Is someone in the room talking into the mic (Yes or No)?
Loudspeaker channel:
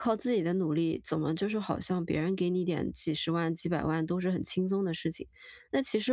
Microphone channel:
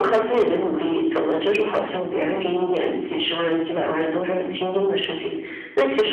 No